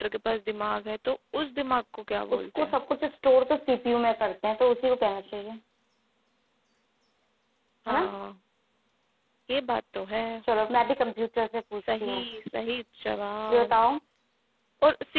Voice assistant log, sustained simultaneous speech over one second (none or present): none